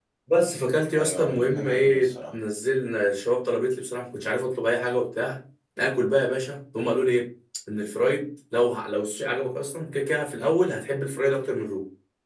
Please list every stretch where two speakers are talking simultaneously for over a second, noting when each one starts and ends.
1.0-2.3

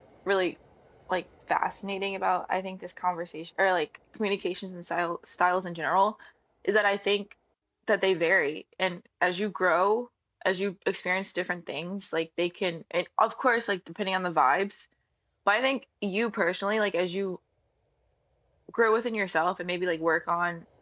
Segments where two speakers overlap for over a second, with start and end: none

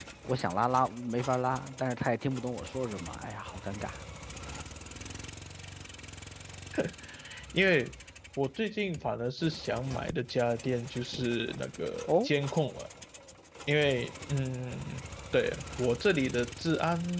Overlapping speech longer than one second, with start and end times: none

